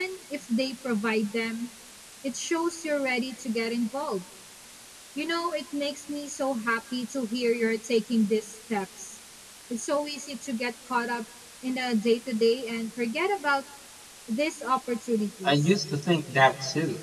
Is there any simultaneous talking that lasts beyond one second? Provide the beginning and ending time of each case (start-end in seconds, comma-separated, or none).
none